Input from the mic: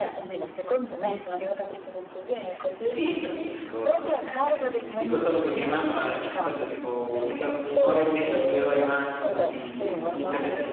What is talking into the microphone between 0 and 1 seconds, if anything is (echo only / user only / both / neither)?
echo only